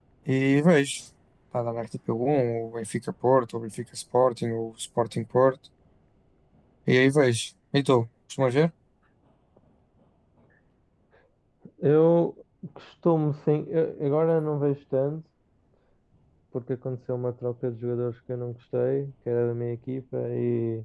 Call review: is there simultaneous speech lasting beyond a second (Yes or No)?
No